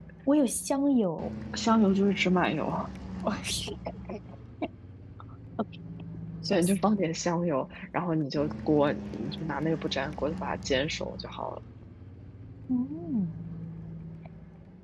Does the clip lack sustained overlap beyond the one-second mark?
Yes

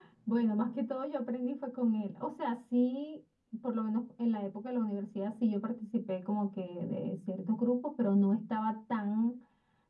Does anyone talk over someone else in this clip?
No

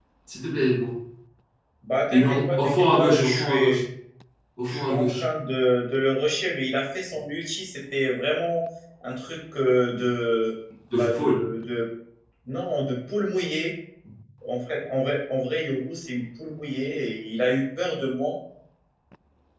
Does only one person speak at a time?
No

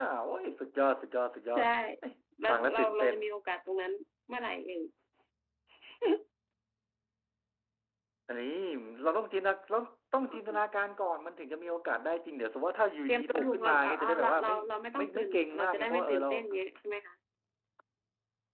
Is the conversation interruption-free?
No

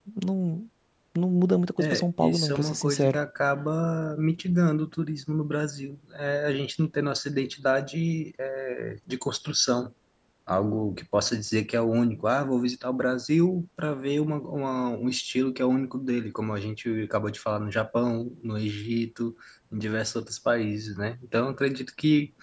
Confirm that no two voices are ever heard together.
No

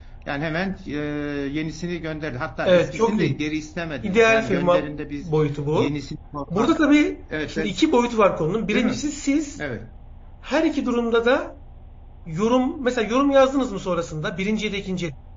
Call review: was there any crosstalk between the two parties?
Yes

